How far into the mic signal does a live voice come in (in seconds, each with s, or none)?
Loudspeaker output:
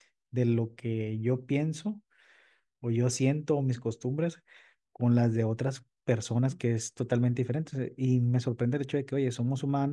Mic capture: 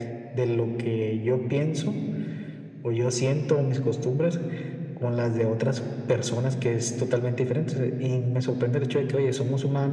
none